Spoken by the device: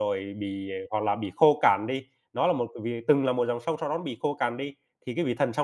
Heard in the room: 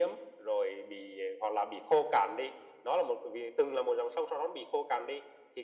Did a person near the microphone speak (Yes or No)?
No